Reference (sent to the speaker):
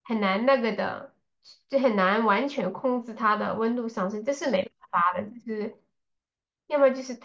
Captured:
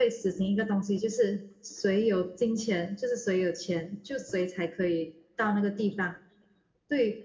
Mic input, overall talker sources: user only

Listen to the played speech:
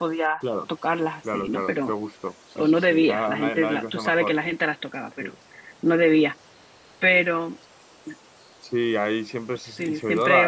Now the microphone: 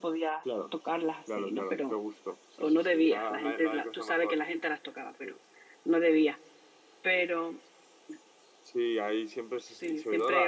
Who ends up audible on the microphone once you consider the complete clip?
echo only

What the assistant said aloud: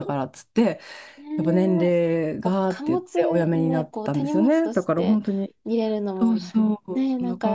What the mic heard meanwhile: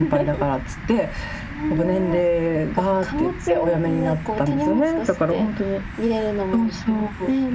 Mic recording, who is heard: echo only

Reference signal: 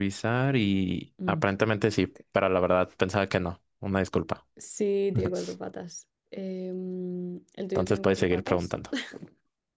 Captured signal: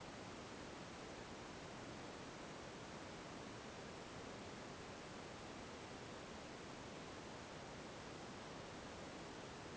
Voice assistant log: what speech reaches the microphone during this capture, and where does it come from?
neither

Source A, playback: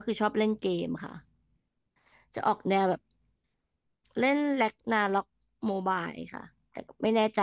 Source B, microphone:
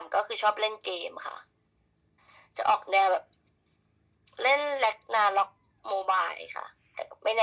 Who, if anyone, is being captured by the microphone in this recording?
echo only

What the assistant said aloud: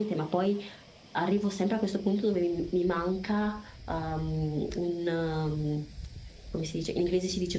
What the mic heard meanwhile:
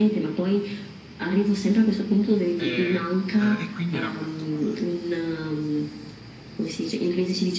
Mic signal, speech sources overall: both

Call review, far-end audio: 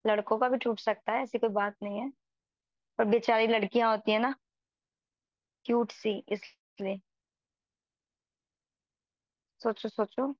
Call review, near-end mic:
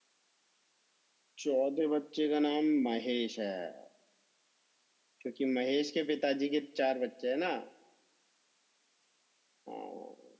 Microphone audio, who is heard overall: user only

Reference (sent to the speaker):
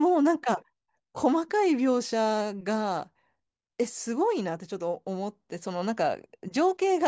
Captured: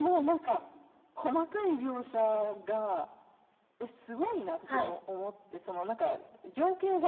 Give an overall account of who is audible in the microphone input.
both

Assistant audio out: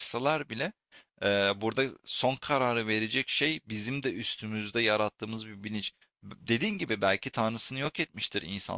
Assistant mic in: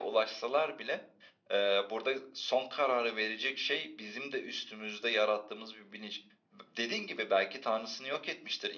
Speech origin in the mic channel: echo only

